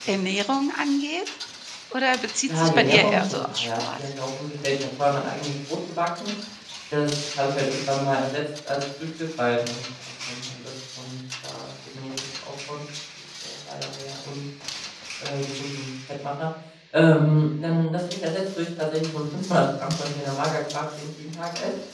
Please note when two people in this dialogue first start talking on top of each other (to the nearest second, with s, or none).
2 s